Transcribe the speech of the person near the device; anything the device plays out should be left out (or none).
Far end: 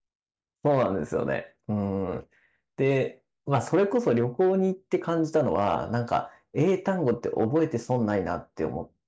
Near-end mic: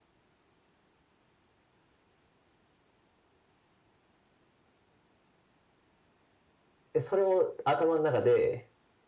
それを頭の中で